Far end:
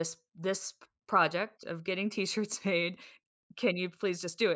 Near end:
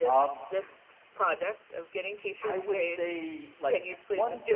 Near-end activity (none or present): present